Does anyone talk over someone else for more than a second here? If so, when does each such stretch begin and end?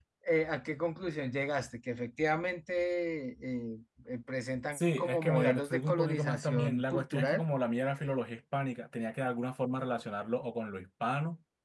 4.7-7.4

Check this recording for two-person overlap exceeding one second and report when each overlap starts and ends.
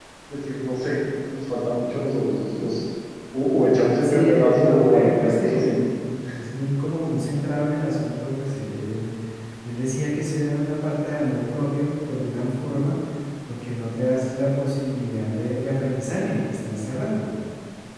4.0-5.8

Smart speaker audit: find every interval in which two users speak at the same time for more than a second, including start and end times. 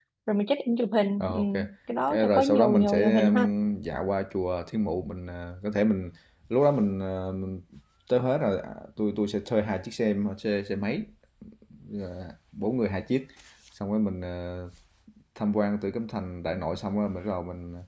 2.1-3.5

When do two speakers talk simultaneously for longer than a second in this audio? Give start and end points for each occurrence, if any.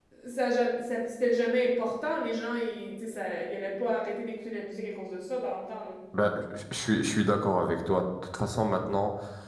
none

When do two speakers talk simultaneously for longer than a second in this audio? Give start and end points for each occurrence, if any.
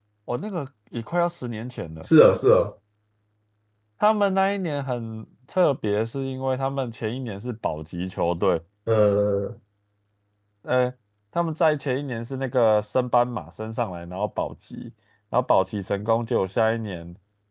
none

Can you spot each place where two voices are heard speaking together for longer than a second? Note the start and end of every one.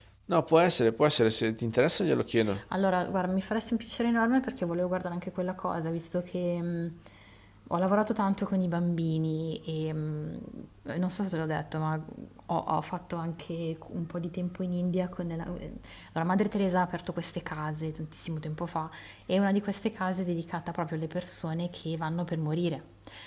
none

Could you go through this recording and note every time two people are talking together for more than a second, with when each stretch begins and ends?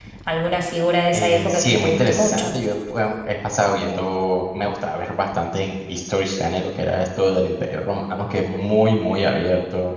1.1-2.5

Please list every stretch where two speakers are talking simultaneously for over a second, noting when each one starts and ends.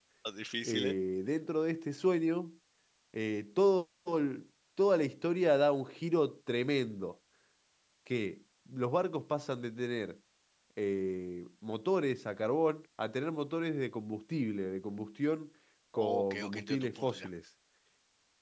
16.0-17.3

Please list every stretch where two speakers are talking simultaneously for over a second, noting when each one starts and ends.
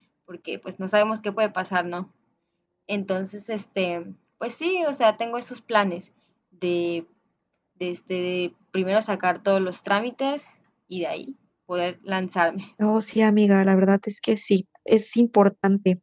none

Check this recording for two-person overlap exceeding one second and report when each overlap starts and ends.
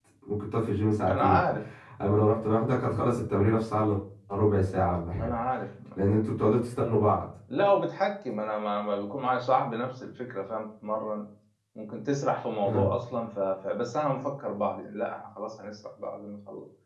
none

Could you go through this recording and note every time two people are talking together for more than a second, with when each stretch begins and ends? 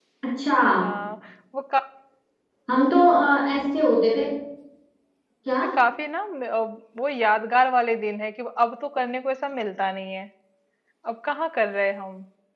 none

